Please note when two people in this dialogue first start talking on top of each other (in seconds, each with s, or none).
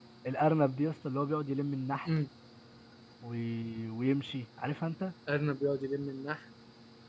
none